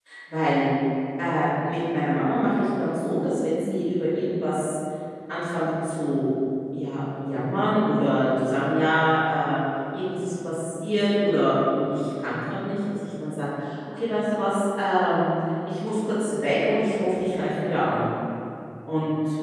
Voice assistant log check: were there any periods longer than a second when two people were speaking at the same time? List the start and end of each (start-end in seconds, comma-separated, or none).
none